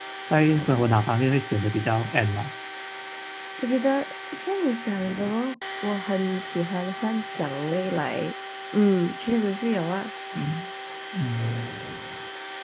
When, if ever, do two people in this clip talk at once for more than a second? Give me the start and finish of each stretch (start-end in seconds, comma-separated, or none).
none